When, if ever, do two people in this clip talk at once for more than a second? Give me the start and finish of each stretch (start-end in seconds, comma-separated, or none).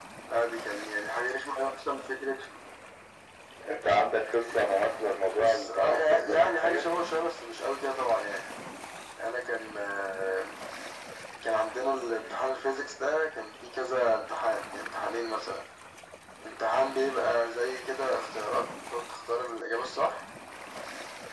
5.3-6.8